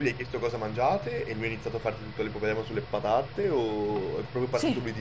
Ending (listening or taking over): taking over